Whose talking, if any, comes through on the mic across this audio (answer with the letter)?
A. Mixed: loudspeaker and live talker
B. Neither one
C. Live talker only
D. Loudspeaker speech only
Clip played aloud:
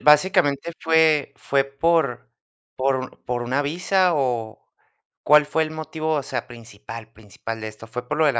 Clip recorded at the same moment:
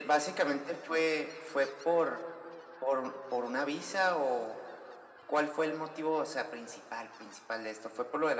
D